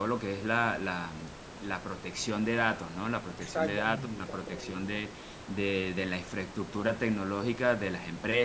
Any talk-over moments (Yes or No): Yes